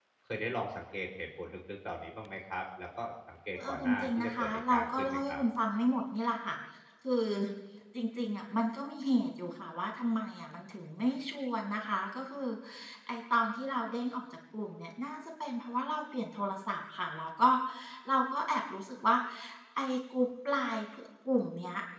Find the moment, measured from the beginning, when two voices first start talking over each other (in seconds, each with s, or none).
3.5 s